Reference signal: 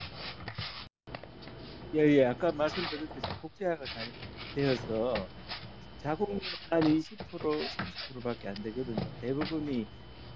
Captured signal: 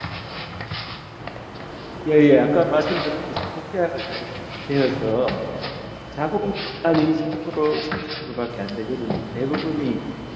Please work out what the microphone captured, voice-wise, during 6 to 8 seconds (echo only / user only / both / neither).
echo only